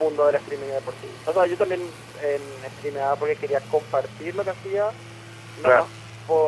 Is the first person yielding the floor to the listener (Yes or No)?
No